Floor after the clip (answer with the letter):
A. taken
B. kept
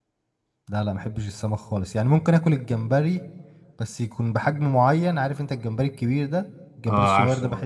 B